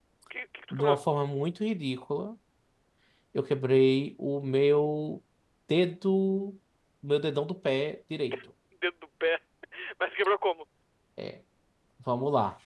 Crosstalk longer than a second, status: none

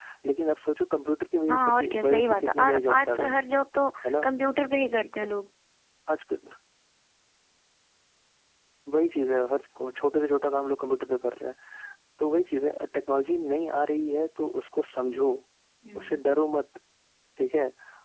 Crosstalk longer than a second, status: present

